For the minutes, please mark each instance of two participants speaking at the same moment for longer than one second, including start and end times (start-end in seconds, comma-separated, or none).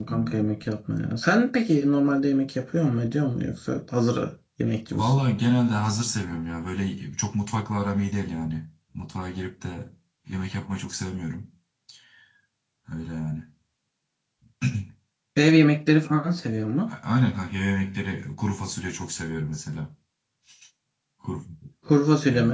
none